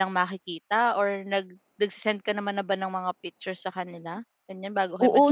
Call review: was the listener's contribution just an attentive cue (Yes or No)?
No